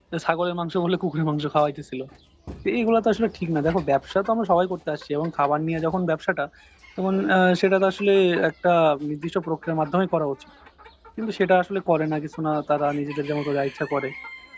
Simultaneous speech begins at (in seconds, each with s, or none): none